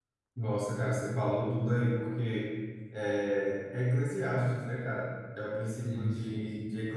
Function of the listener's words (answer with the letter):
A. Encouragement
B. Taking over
A